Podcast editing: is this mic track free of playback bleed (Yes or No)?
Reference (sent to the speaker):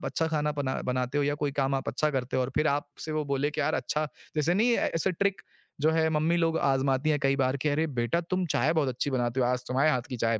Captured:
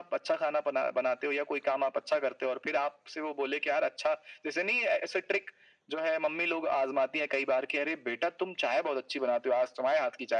No